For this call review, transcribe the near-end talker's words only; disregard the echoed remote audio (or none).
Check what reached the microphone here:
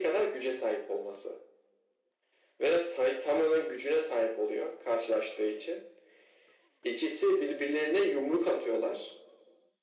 none